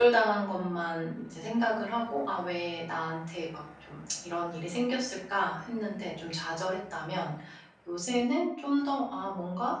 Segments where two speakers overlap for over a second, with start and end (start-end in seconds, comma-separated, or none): none